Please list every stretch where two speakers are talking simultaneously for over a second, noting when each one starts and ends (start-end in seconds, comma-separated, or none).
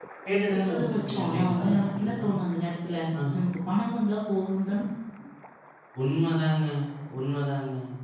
0.5-2.2